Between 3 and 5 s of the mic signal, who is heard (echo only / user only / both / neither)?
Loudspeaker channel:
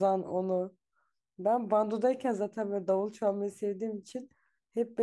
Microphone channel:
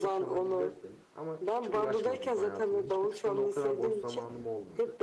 both